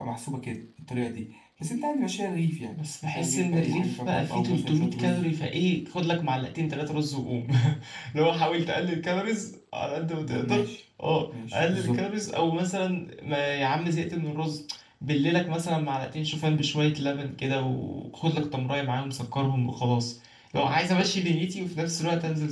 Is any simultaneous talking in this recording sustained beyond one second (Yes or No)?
Yes